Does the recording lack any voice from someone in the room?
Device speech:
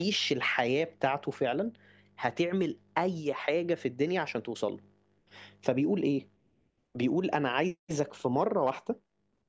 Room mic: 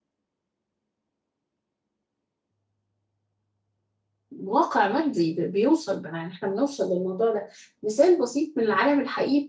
No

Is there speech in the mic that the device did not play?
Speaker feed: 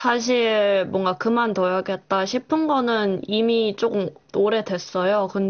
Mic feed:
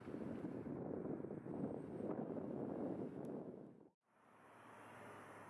No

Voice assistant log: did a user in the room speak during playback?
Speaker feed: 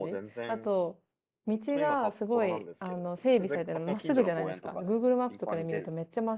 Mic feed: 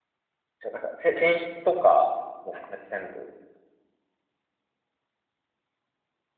Yes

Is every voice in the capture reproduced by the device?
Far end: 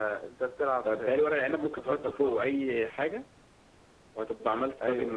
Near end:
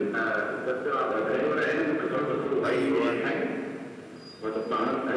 No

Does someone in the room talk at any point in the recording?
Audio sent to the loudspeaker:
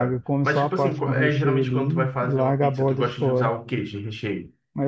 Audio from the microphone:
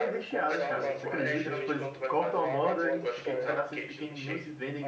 Yes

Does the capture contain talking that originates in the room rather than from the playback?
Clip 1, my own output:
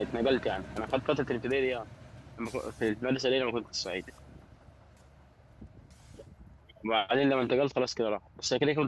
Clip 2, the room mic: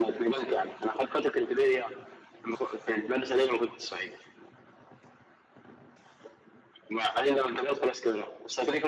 No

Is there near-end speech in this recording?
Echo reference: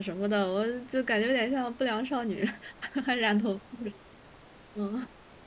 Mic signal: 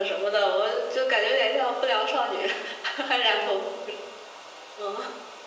No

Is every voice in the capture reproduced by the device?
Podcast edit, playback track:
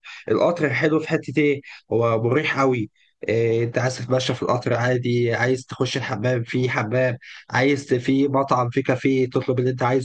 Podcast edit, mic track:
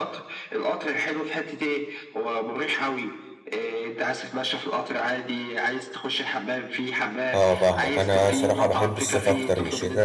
No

